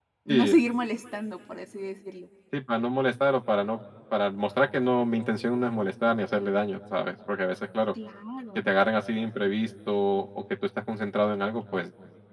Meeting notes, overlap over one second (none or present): none